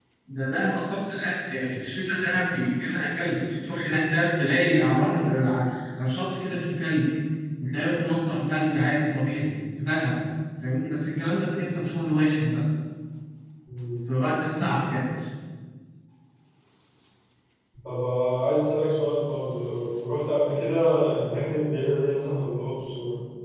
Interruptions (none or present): none